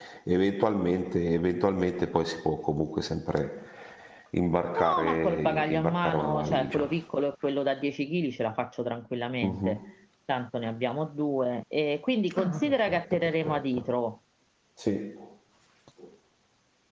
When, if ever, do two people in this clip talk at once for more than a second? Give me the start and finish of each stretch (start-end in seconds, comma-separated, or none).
4.7-6.8, 12.4-13.8